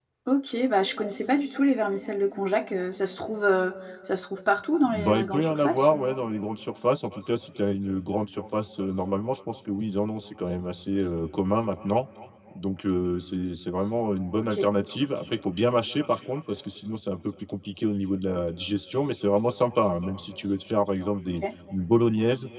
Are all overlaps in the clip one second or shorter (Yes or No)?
No